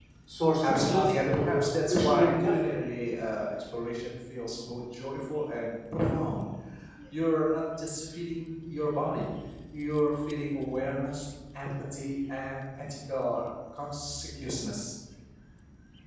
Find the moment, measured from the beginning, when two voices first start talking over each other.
0.6 s

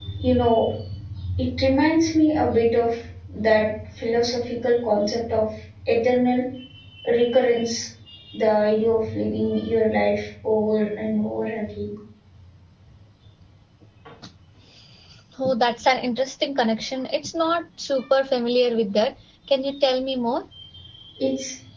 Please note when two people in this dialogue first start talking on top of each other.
none

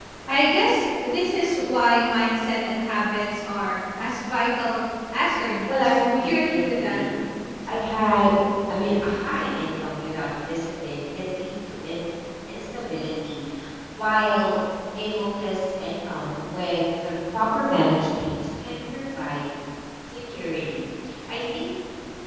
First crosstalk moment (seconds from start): 5.7 s

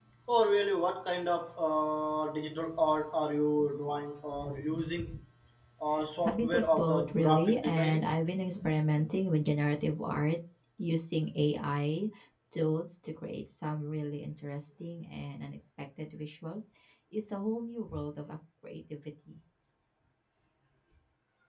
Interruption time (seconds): 6.2 s

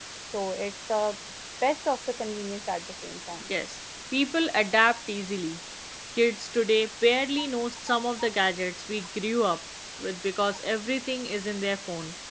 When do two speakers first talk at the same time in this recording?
none

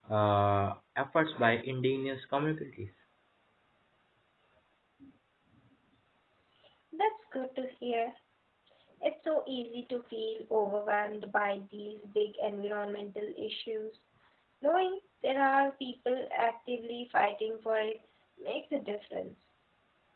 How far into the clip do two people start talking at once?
none

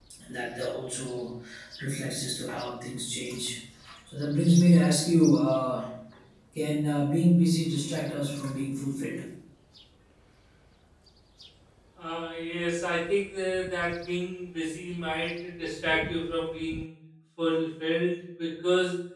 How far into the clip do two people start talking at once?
none

